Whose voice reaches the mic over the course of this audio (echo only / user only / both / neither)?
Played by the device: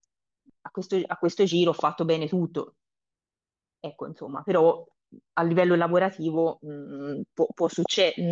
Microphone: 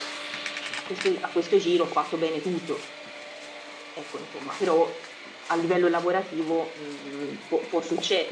echo only